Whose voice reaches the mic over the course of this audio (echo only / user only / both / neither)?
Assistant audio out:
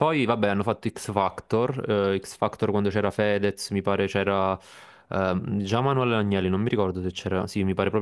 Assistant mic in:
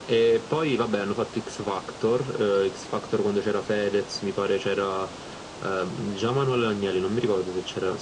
echo only